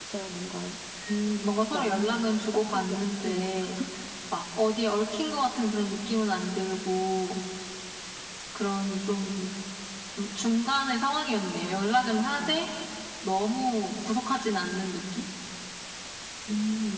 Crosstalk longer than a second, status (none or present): present